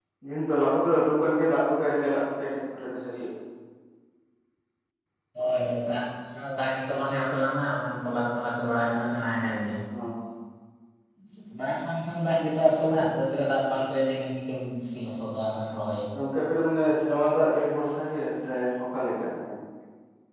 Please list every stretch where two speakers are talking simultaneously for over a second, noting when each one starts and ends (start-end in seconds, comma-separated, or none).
none